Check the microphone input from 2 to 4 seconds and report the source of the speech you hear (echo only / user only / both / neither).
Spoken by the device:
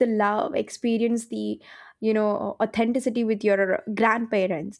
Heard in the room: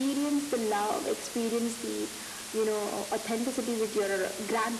echo only